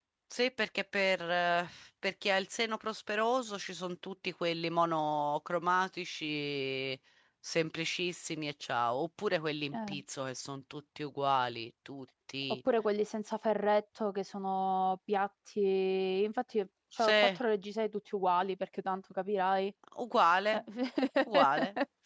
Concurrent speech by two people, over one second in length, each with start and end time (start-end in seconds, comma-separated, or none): none